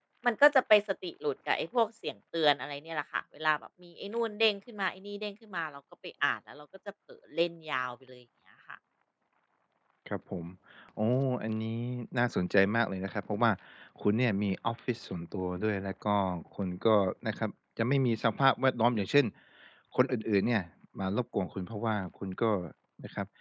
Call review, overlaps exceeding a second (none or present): none